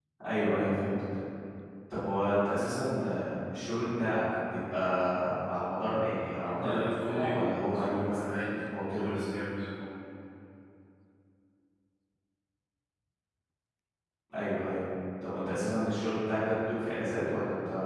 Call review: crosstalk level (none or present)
present